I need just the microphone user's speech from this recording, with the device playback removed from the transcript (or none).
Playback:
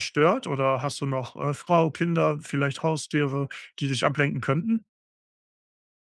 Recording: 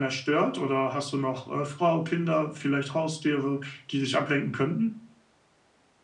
none